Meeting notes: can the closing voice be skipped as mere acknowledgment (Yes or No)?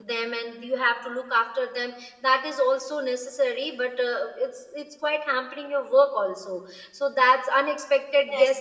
No